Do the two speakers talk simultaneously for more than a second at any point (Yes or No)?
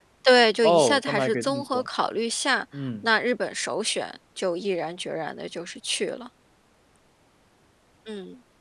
Yes